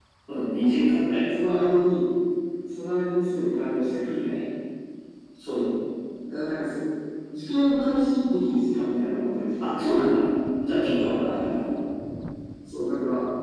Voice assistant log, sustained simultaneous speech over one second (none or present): none